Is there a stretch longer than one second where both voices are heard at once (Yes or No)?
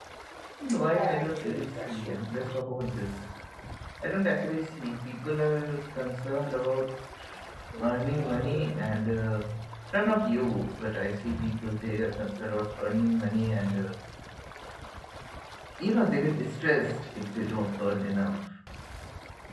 Yes